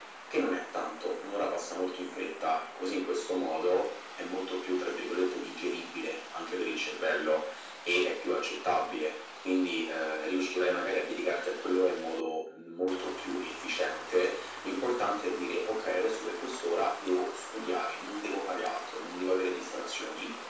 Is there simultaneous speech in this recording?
No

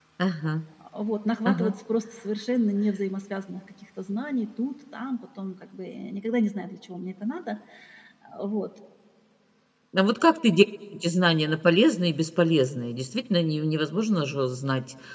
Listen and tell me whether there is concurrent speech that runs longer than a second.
No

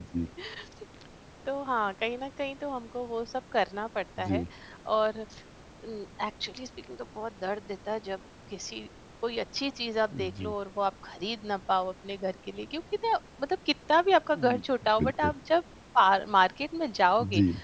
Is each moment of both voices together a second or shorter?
Yes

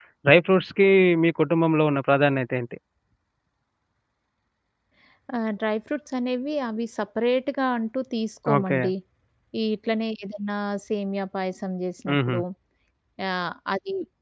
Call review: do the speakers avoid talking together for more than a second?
Yes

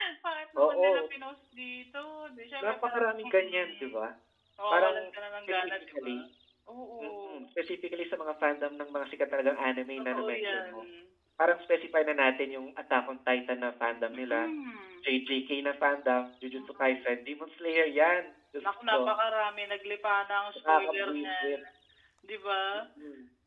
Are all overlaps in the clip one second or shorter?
No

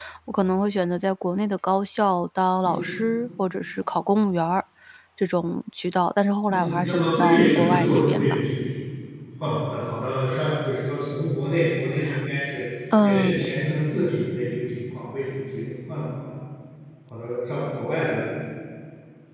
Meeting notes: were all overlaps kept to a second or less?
No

